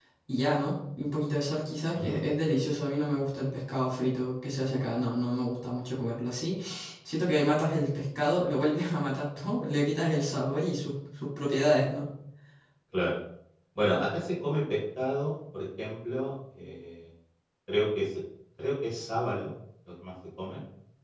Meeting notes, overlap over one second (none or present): none